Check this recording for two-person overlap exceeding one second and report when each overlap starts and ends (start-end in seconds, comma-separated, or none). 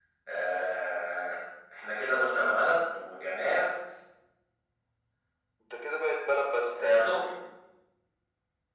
none